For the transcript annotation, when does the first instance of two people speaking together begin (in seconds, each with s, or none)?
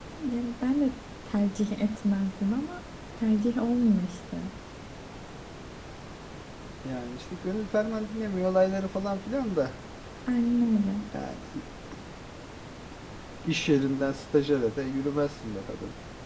none